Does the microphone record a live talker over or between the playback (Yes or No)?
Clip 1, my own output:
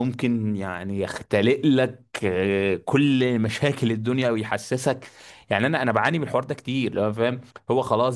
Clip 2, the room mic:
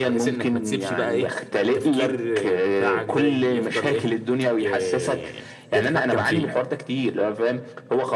Yes